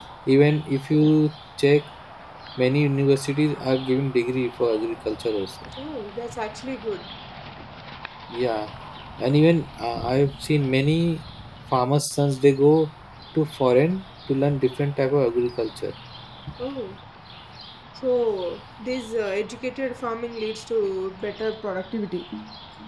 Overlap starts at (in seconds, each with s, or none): none